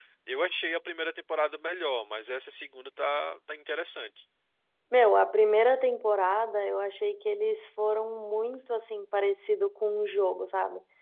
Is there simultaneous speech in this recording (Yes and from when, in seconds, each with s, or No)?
No